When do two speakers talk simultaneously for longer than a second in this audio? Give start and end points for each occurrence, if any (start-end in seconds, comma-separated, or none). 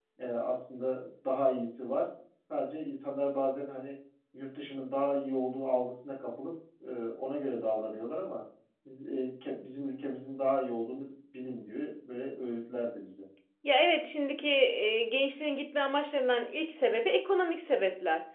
none